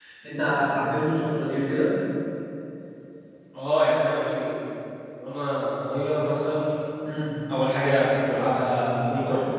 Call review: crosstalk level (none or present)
none